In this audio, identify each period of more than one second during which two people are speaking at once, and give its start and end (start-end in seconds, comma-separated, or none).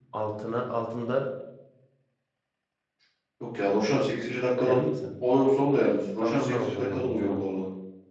6.2-7.4